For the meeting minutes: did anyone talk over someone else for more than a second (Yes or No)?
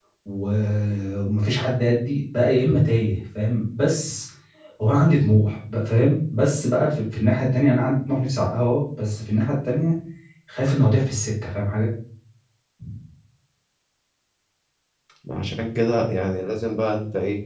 No